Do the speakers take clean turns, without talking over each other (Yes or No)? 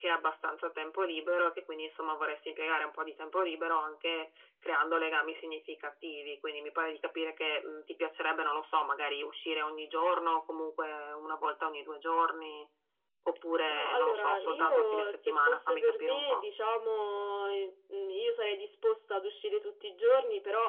No